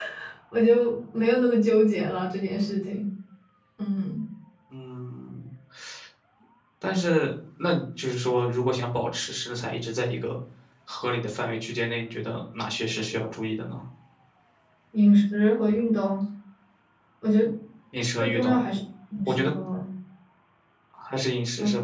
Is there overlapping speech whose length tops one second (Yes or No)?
No